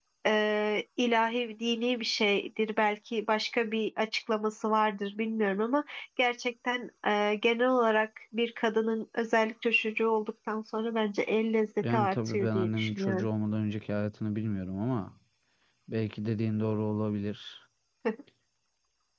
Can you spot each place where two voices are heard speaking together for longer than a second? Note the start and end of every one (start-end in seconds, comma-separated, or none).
11.8-13.3